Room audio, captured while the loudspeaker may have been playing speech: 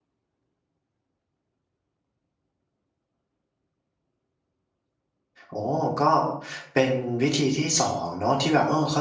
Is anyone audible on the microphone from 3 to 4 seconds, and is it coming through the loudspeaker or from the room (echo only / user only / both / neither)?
neither